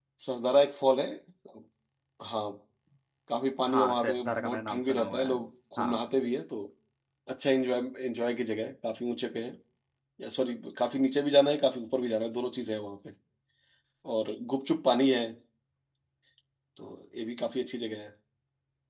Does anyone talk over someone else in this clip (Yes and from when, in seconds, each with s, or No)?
Yes, from 3.7 s